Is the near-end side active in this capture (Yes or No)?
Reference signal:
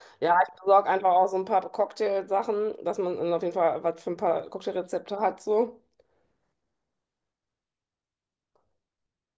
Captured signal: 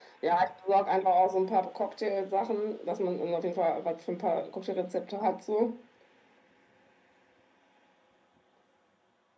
No